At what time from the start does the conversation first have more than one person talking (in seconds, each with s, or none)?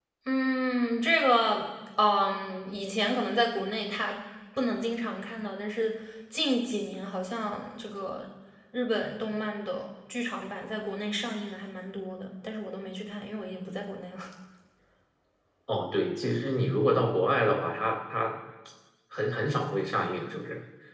none